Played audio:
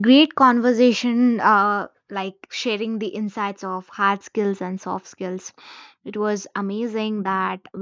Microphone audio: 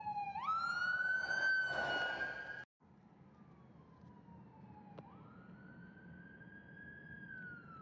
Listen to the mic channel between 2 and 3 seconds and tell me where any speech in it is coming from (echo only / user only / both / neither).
neither